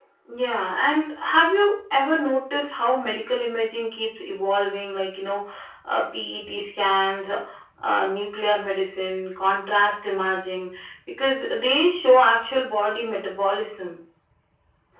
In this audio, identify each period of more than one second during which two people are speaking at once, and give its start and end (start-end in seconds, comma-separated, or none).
none